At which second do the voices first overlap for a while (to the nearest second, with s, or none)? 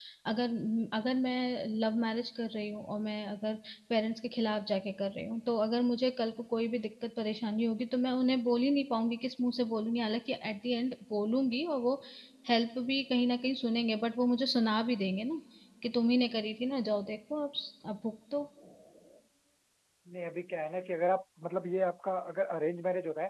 none